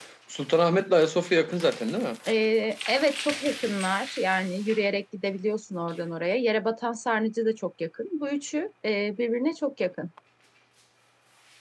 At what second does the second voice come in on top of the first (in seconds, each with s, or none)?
none